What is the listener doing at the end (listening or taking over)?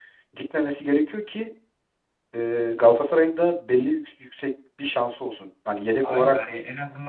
taking over